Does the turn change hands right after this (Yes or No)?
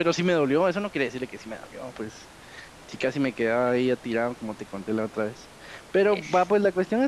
No